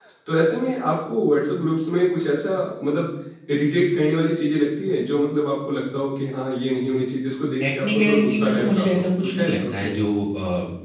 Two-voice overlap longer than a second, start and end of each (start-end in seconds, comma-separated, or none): 7.6-9.9